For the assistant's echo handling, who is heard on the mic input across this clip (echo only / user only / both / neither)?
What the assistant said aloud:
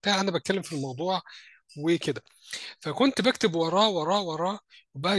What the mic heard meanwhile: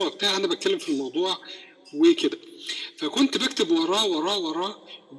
echo only